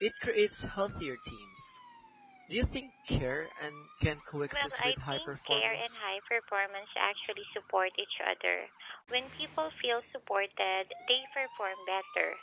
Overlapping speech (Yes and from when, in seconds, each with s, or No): Yes, from 4.5 s